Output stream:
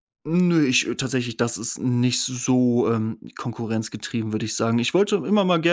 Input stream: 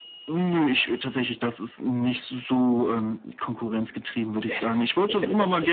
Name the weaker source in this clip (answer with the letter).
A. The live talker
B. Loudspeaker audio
A